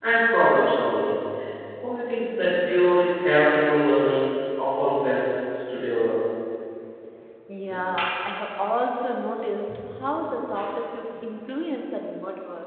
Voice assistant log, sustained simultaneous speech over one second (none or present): none